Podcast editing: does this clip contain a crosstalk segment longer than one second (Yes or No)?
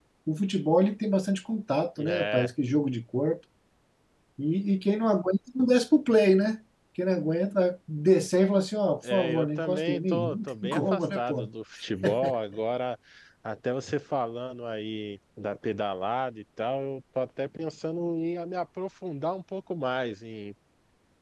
Yes